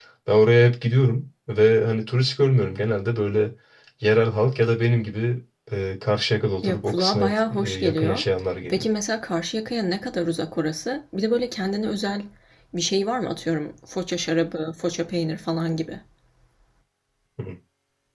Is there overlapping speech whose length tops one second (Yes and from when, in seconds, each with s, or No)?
Yes, from 6.6 s